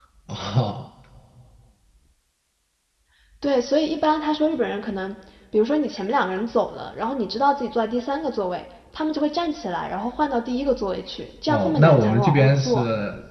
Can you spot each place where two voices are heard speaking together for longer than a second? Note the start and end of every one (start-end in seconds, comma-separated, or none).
11.5-12.8